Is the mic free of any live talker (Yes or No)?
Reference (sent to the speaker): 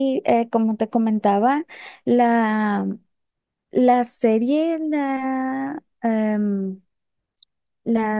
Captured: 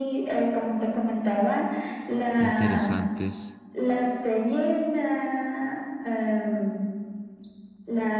No